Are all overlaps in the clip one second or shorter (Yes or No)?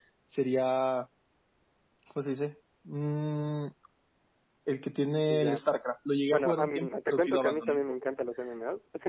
No